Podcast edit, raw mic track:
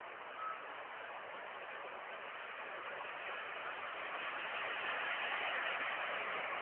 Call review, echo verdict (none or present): none